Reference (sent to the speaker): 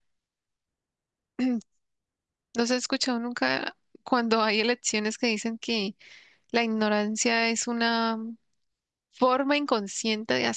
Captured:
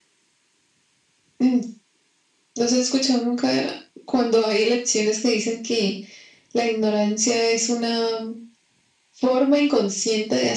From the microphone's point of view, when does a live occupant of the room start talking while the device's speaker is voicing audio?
none

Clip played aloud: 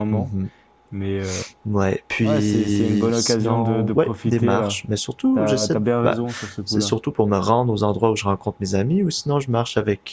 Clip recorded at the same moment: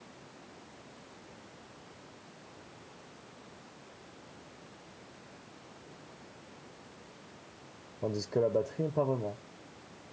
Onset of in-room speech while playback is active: 8.0 s

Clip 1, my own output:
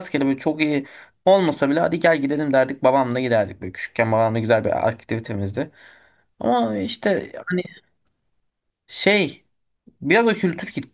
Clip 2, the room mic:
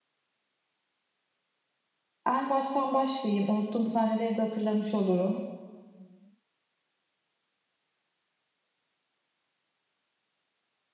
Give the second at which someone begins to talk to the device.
2.3 s

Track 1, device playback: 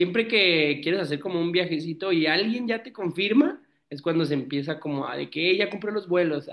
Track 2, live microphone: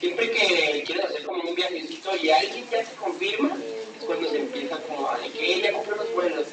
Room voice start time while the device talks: 3.5 s

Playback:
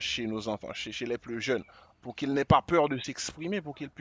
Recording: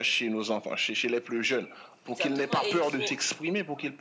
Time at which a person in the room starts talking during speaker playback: 2.0 s

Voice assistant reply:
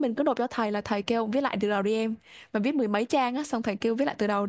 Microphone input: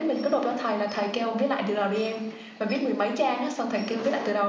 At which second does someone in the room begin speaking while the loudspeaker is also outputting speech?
none

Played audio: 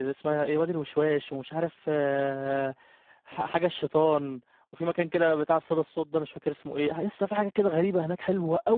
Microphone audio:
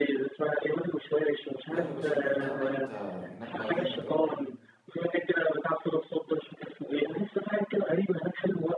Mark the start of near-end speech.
1.7 s

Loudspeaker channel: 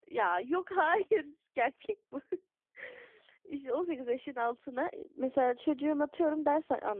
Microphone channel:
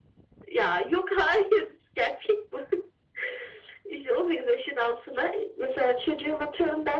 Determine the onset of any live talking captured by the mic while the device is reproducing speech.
none

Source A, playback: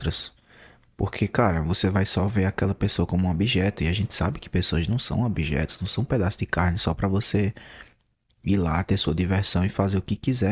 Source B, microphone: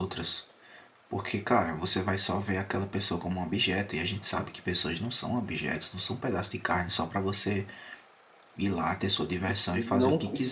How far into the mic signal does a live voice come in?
9.4 s

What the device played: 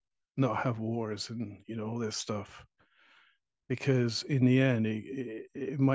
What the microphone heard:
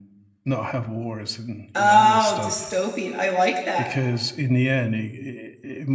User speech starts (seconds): 1.8 s

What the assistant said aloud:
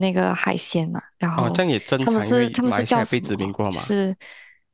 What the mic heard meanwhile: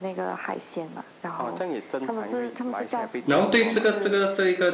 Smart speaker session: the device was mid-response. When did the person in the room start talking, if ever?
3.2 s

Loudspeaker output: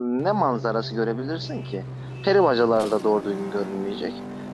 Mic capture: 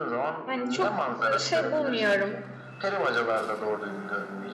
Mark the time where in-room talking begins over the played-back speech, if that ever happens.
0.4 s

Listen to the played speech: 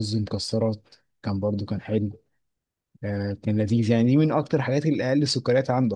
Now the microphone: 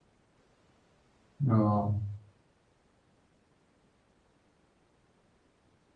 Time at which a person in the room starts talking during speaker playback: 1.5 s

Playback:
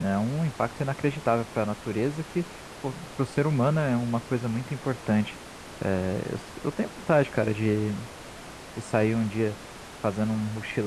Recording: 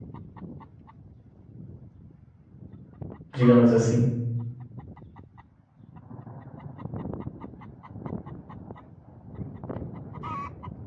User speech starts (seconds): 3.4 s

